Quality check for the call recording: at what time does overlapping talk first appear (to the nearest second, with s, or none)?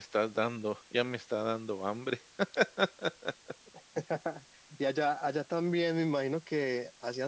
none